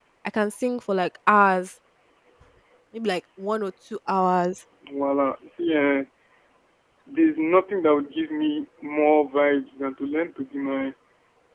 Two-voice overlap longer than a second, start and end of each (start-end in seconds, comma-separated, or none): none